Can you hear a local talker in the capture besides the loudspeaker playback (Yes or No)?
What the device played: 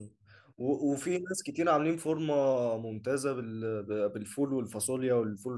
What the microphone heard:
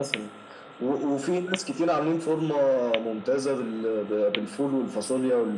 No